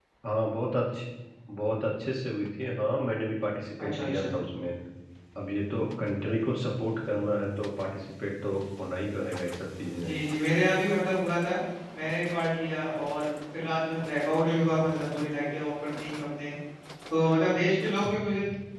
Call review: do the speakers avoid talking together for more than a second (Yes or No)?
Yes